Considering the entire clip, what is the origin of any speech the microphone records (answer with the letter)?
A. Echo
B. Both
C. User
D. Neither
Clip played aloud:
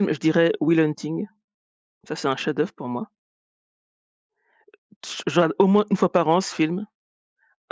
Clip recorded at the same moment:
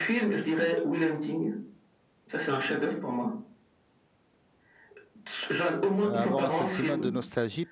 B